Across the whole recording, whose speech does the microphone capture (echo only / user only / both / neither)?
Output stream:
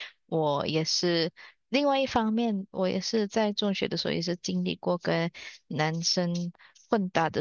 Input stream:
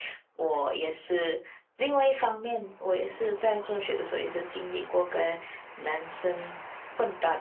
echo only